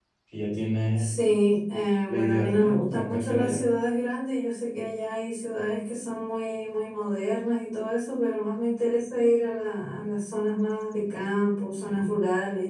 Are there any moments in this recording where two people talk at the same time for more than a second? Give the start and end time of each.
2.1-3.6

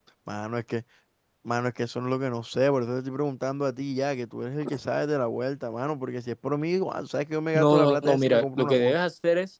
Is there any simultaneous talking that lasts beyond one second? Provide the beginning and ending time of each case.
7.5-9.0

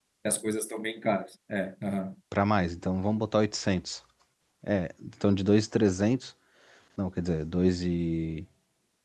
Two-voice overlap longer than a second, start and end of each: none

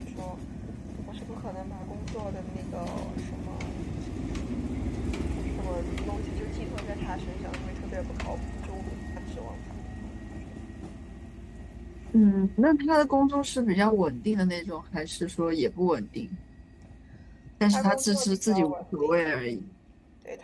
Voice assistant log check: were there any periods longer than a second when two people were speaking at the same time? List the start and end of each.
17.7-19.2

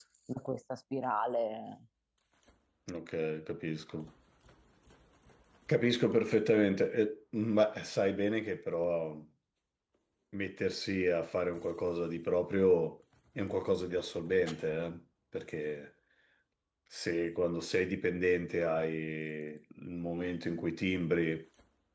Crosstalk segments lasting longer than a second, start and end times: none

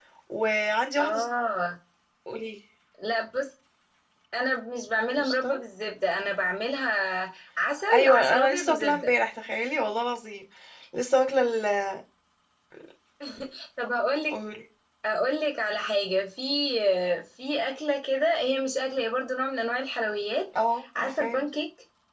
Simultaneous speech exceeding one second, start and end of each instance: 7.9-9.1

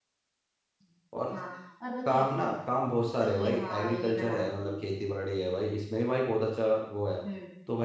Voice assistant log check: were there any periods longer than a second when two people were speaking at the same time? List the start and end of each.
3.3-4.8

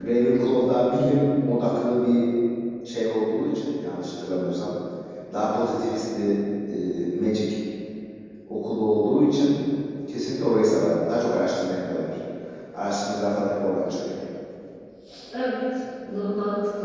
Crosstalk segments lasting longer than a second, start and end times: none

